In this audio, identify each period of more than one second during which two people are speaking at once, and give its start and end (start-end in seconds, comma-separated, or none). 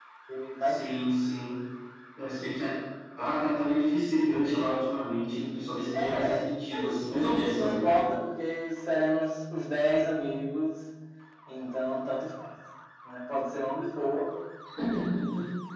5.9-8.0